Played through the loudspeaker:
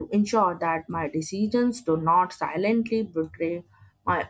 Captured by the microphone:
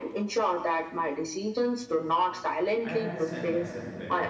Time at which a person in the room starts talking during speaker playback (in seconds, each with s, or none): 2.8 s